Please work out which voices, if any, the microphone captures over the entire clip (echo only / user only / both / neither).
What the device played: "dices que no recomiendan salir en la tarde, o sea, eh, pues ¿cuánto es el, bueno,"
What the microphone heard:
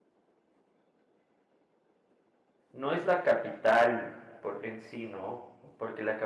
user only